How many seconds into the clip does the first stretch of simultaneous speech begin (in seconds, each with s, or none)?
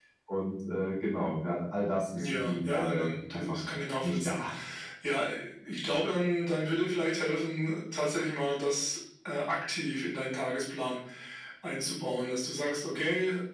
2.2 s